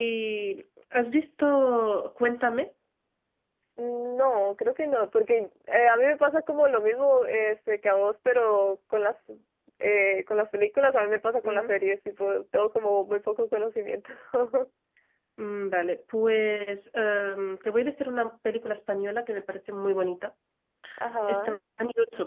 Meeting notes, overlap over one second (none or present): none